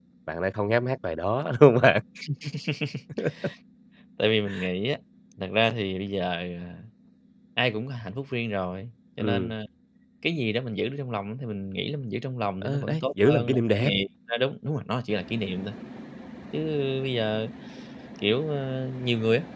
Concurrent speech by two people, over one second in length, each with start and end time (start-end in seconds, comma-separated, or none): 12.6-13.9